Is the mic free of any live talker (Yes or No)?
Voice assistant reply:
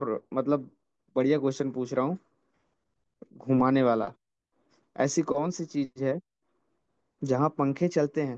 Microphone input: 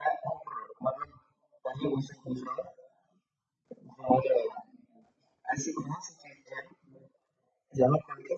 Yes